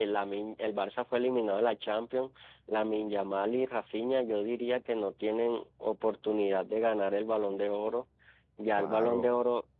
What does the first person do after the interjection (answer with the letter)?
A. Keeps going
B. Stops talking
A